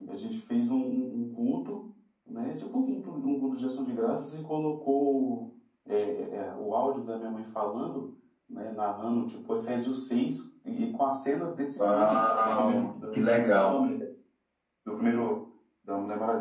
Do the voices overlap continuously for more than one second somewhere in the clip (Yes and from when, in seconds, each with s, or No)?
Yes, from 11.8 s